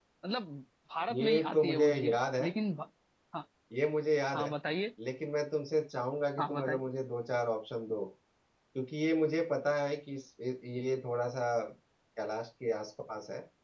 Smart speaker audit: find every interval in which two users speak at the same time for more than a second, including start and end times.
1.1-2.5

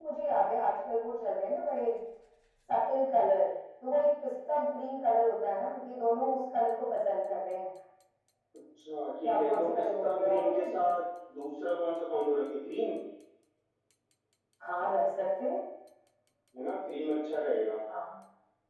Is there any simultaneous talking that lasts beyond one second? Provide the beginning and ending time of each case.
9.2-10.6

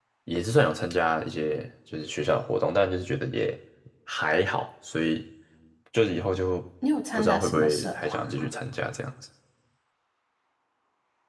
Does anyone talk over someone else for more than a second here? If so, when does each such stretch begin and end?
7.1-8.5

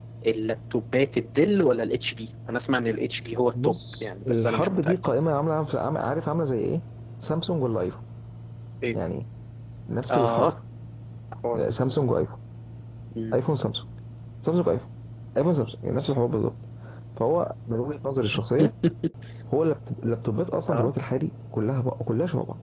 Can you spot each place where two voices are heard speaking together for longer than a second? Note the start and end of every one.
3.5-5.0

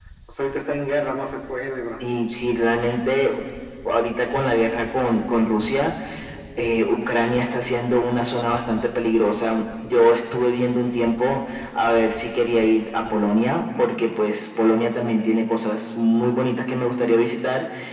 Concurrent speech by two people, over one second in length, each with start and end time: none

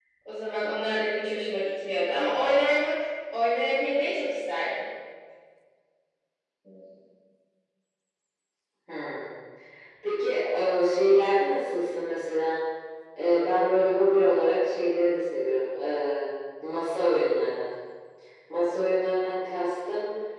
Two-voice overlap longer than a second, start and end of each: none

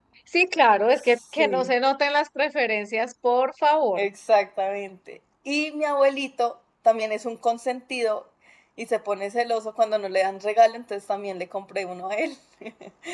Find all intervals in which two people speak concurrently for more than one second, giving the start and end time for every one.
none

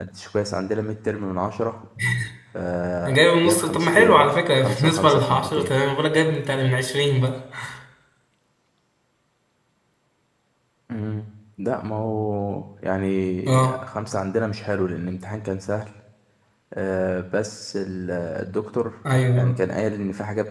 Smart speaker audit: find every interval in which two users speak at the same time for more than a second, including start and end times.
3.0-5.7

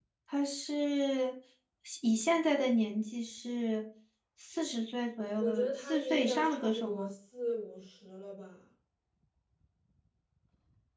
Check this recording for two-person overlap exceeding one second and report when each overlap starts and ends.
5.4-7.1

